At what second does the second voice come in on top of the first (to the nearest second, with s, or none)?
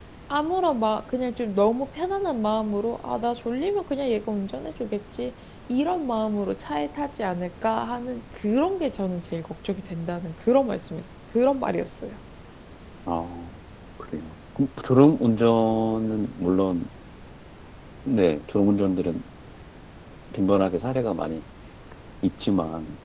none